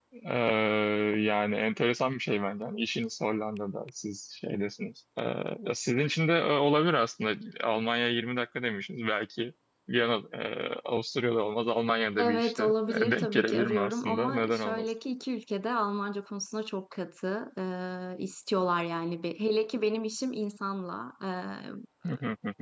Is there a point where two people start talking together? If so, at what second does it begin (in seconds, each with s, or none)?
12.2 s